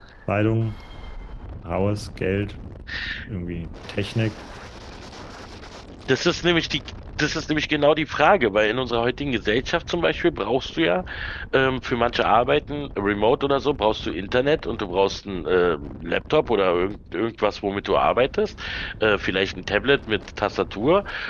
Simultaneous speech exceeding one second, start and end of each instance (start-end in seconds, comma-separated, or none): none